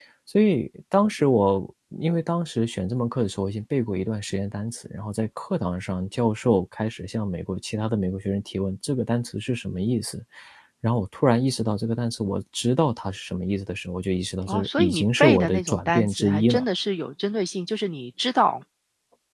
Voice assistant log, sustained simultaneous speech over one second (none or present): present